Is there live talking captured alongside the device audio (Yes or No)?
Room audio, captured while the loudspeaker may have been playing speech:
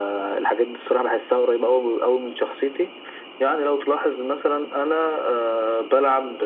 No